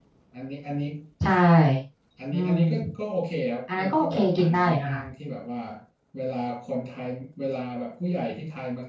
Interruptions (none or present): present